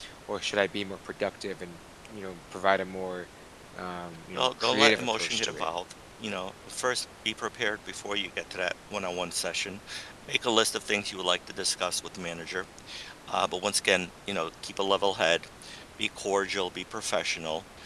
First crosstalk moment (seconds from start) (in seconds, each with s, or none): 4.3 s